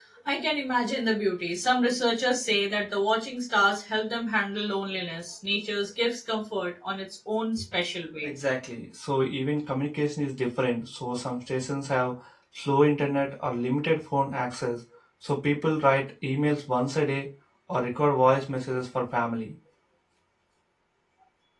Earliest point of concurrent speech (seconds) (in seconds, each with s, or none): none